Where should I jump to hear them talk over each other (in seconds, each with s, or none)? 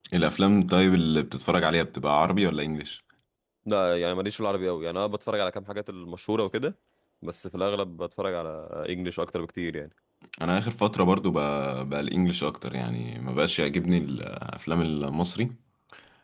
none